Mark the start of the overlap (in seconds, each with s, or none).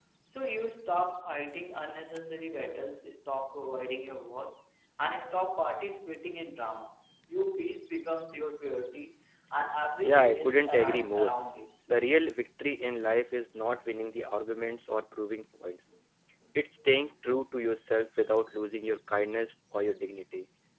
10.0 s